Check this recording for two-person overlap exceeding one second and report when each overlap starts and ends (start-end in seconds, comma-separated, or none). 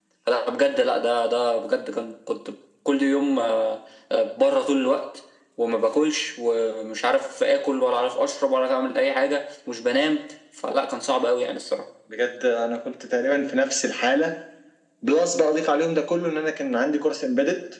none